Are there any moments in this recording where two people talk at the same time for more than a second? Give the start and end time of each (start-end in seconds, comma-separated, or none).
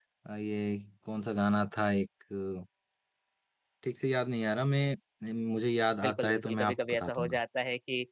6.0-7.4